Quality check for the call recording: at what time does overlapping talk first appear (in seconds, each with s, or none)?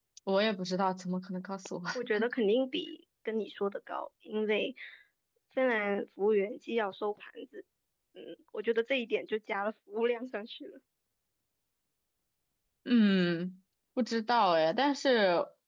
none